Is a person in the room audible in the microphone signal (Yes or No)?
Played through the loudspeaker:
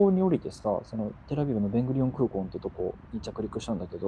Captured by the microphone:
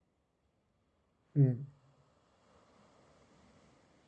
Yes